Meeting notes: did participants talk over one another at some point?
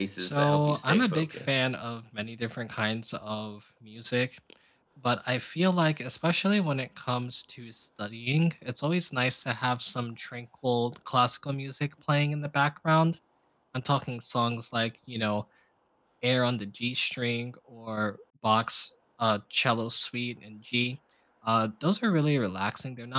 Yes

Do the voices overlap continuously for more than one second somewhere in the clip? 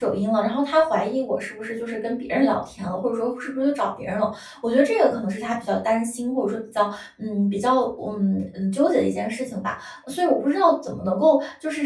No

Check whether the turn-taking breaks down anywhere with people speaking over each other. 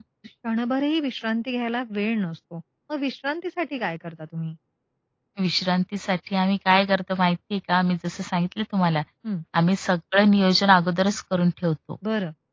No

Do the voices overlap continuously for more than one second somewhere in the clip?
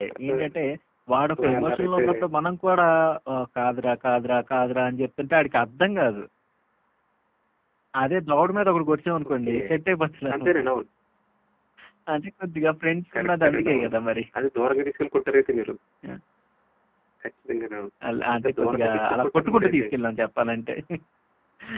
Yes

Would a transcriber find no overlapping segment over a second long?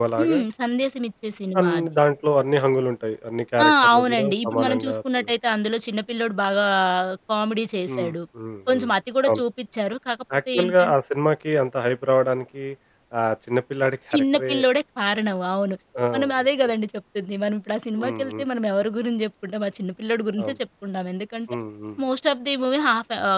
No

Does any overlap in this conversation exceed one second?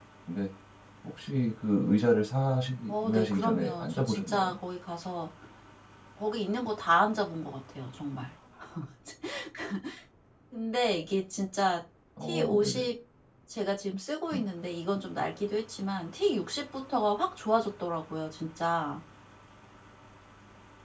Yes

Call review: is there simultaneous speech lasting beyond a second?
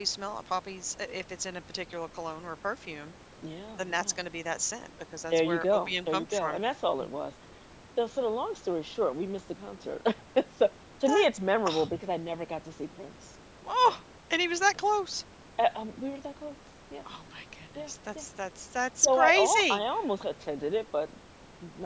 Yes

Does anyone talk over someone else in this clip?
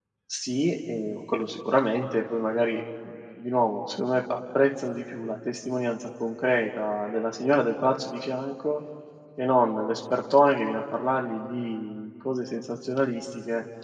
No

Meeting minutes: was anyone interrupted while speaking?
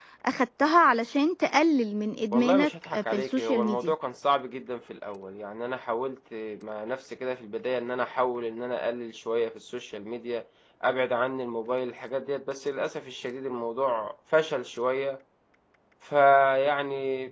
Yes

